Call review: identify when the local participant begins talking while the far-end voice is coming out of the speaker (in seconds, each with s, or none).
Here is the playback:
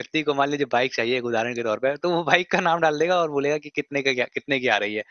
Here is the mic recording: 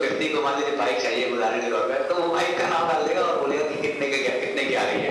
none